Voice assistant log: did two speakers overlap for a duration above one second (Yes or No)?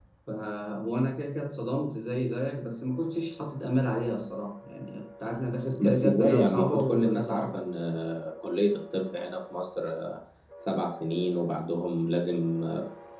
Yes